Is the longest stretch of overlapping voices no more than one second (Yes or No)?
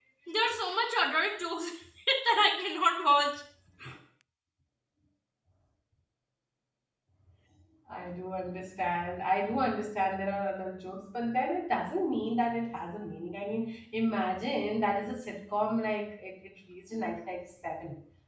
Yes